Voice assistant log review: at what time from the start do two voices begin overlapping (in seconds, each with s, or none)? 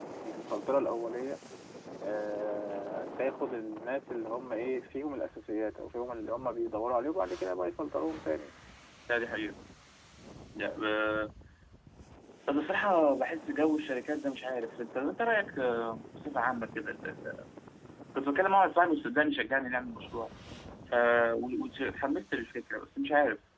none